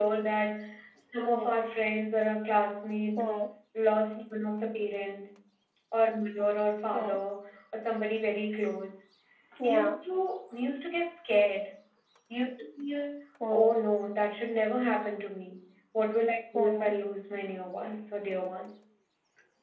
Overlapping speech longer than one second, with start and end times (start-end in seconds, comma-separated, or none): none